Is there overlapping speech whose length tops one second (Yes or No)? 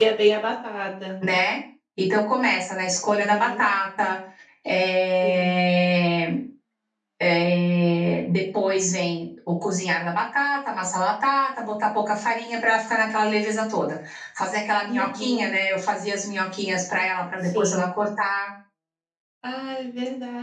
No